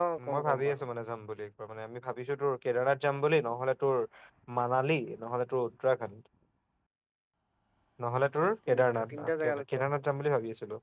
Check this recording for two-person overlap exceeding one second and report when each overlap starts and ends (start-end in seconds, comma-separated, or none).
8.4-9.8